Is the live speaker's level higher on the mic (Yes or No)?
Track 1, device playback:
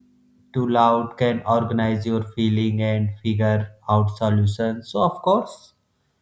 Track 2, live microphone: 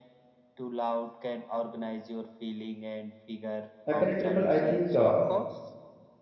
Yes